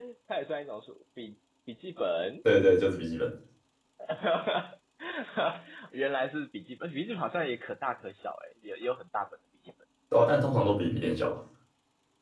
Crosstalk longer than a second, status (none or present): none